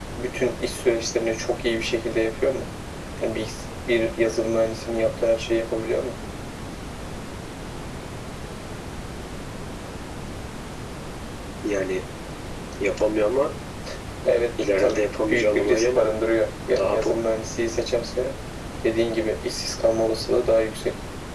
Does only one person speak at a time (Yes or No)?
No